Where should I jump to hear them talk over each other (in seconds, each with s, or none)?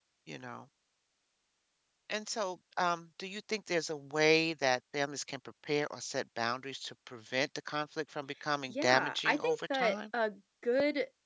8.7 s